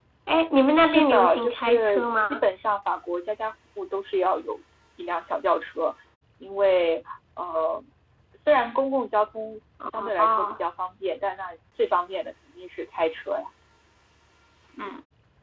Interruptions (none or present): present